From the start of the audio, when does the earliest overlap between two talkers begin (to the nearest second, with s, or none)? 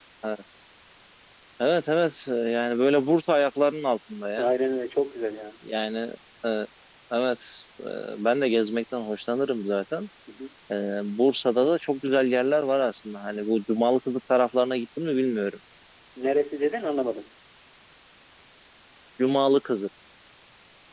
none